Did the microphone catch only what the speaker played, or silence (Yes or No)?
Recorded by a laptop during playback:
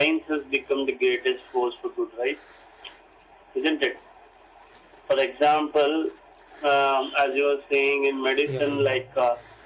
No